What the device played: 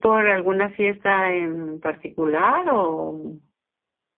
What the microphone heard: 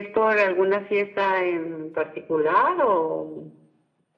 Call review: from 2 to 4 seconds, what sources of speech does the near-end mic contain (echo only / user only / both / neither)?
echo only